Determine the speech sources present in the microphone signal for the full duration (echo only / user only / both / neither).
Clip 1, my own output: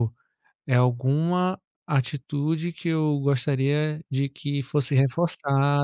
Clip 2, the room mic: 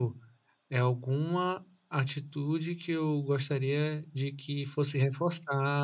echo only